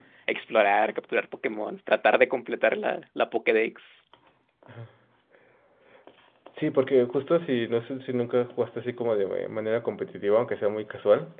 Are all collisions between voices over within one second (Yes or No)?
Yes